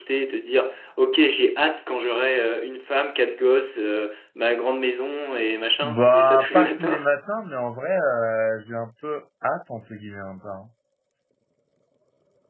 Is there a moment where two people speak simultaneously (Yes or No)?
Yes